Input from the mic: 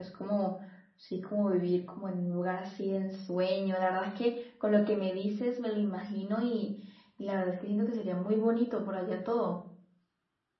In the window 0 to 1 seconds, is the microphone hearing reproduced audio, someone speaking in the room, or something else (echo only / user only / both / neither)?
user only